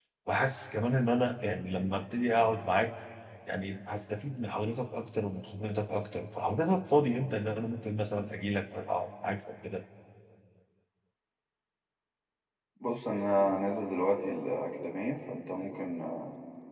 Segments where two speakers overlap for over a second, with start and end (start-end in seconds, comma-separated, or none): none